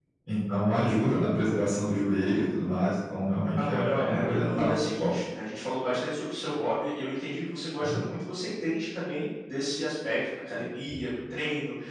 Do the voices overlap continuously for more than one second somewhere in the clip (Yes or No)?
Yes